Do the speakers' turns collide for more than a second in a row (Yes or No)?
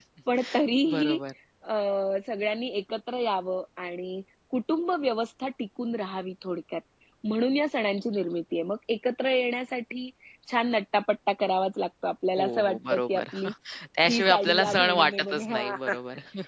Yes